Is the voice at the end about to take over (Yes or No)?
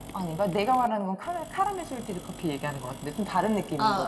Yes